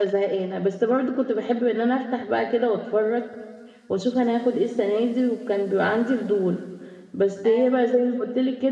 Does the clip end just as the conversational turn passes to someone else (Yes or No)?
No